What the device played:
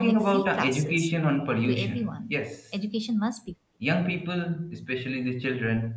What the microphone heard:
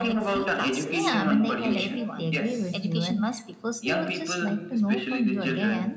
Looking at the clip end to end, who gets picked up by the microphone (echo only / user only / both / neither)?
both